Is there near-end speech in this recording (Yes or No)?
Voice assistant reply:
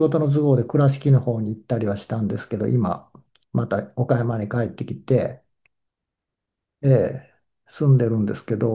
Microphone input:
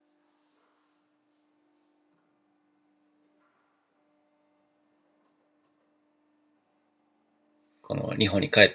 Yes